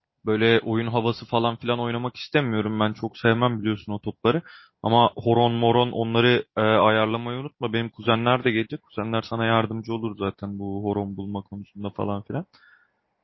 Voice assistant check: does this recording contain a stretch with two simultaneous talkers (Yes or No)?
No